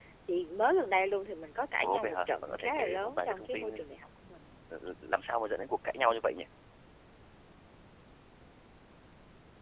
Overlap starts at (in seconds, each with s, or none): 1.8 s